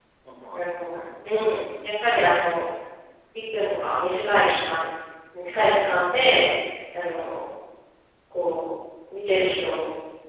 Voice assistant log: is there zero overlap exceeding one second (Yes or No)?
No